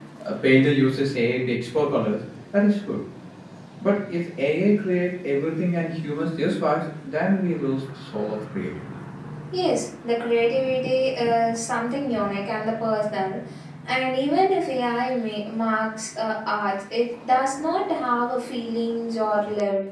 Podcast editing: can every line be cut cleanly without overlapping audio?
Yes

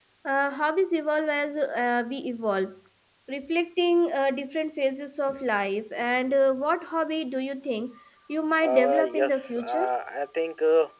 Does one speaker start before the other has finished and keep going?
Yes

